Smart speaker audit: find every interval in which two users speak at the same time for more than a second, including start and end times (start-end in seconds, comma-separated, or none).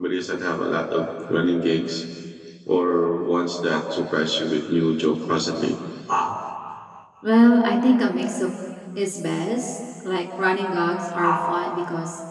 none